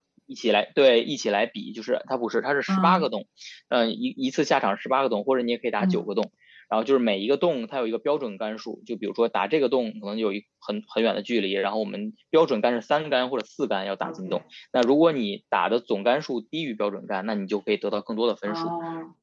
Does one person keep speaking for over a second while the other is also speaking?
No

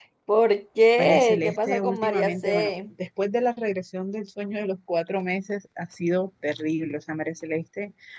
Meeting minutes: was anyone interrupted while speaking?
Yes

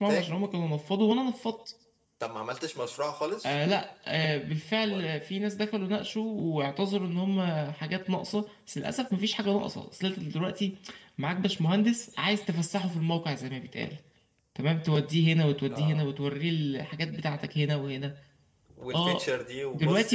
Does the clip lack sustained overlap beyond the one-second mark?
Yes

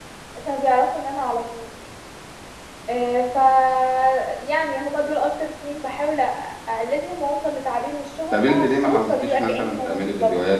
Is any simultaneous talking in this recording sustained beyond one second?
Yes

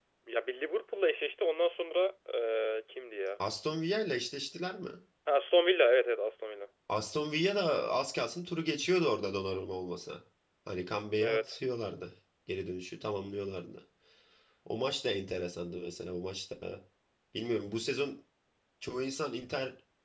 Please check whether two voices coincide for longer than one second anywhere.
No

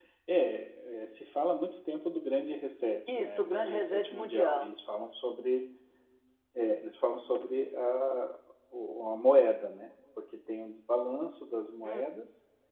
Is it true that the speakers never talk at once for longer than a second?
No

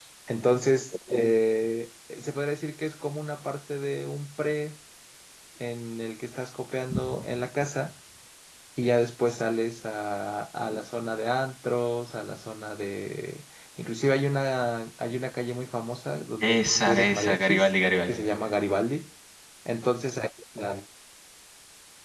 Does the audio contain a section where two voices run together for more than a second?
Yes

